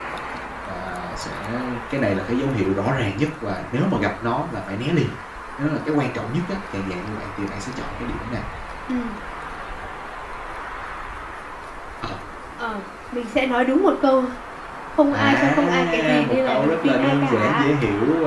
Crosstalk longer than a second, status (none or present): present